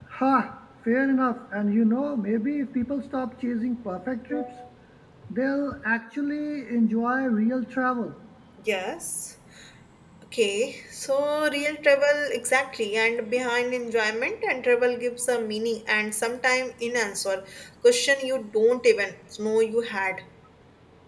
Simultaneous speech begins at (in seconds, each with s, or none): none